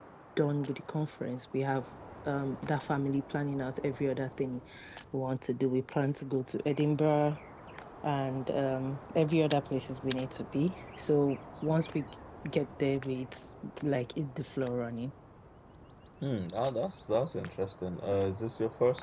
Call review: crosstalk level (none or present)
none